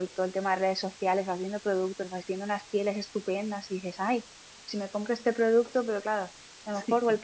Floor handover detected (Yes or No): No